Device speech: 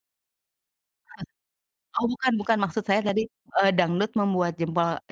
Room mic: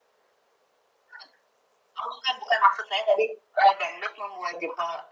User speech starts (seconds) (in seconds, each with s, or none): none